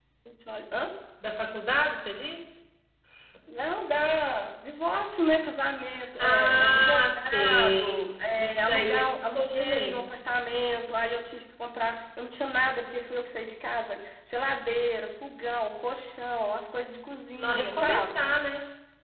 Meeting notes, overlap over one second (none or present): present